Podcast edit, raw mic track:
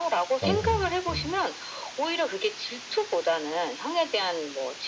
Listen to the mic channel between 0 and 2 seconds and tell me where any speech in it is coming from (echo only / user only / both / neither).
both